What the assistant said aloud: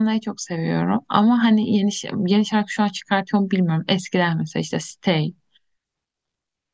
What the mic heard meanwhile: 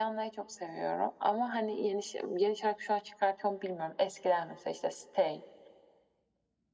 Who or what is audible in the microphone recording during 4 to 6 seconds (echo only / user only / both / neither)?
echo only